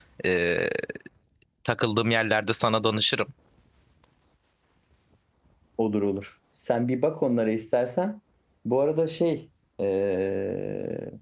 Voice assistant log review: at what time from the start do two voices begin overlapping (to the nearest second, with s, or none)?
none